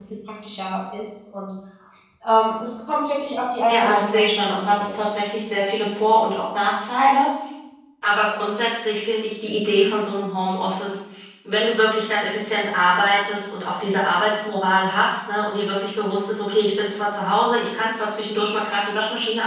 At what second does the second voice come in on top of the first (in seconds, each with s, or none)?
3.6 s